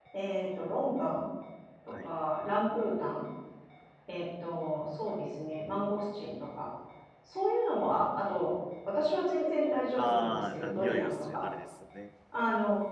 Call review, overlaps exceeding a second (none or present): present